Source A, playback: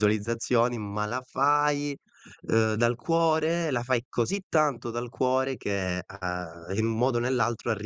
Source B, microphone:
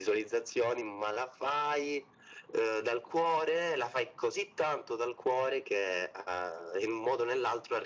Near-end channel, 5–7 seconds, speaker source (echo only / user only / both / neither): echo only